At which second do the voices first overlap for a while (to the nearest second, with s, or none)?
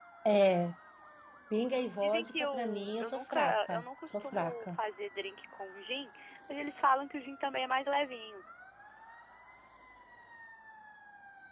2 s